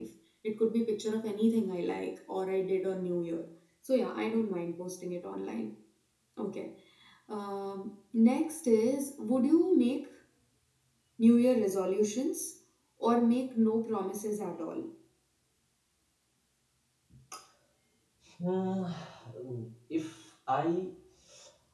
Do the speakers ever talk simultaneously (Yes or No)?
No